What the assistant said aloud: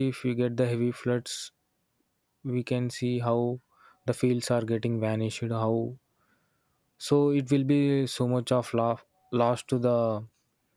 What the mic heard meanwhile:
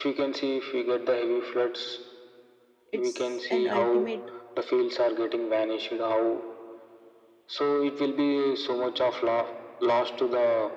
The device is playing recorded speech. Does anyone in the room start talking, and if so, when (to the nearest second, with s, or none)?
3 s